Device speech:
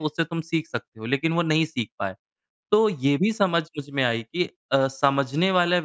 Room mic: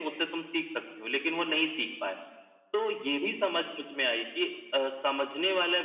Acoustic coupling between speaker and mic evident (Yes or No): Yes